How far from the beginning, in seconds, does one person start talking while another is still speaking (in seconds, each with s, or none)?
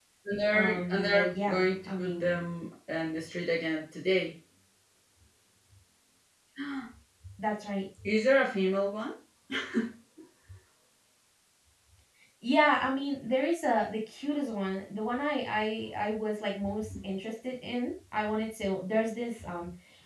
0.6 s